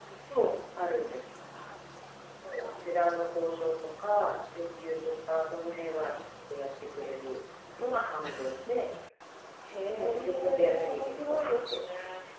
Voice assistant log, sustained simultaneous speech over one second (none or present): present